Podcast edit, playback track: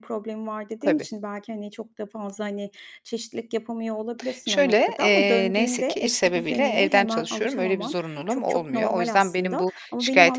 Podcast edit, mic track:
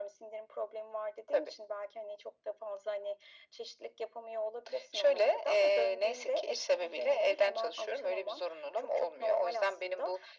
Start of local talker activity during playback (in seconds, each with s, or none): none